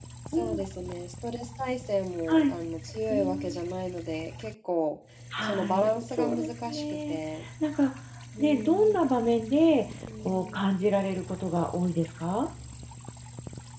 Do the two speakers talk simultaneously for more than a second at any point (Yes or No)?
Yes